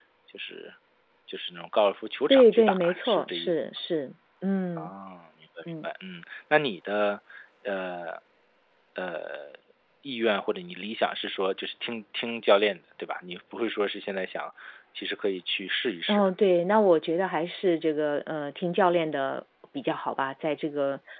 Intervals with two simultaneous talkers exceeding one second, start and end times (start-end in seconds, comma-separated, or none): 2.3-3.6